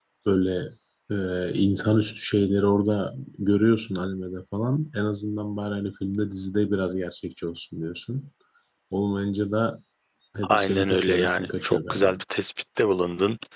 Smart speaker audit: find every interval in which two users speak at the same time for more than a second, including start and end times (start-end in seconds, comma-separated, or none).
10.5-12.2